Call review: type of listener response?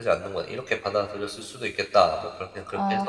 taking over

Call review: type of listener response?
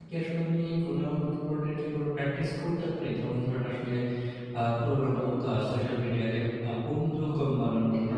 listening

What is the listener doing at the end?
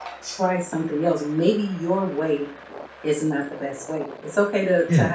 listening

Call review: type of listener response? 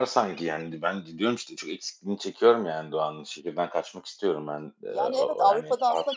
taking over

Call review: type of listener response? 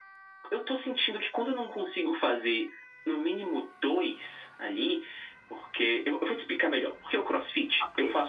listening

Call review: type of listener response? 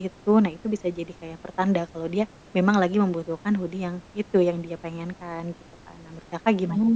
taking over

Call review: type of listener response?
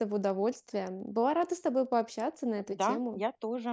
taking over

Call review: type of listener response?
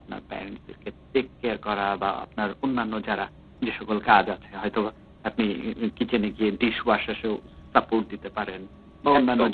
listening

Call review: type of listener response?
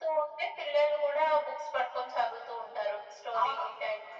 taking over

